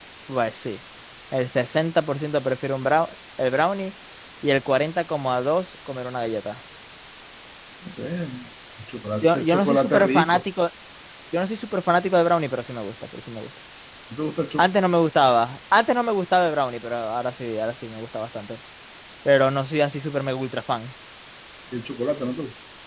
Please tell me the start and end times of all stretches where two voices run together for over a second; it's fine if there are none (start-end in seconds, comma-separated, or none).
9.2-10.4